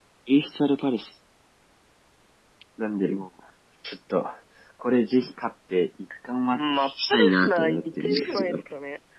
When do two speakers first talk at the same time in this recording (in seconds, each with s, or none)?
6.5 s